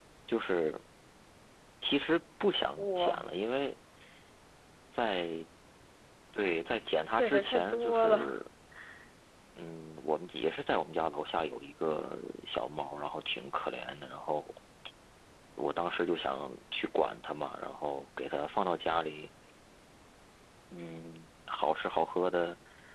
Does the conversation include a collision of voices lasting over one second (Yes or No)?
Yes